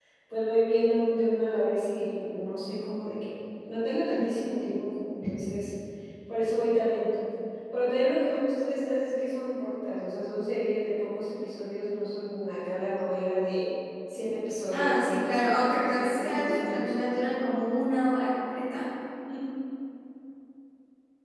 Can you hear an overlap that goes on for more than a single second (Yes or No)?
Yes